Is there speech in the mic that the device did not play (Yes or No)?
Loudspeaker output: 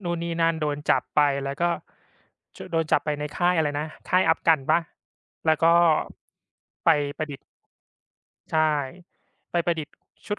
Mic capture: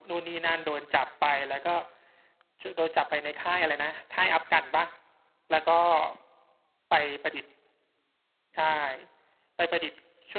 No